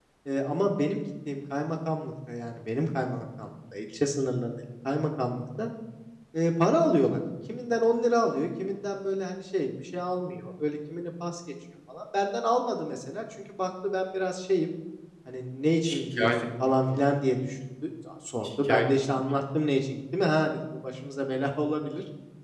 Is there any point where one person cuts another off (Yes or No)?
Yes